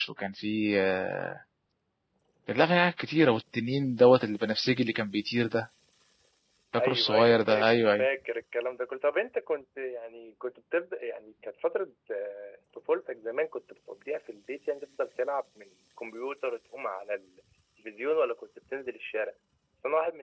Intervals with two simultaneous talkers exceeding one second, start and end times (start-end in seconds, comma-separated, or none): 6.8-8.1